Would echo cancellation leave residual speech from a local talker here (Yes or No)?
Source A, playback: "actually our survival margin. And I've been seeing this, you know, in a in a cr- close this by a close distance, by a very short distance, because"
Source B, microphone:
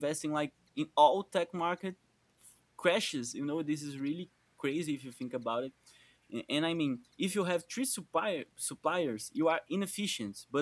Yes